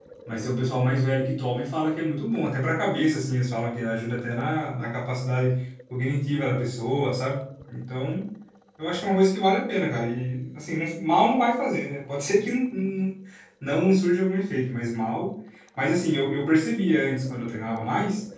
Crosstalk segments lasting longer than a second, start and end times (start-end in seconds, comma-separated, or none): none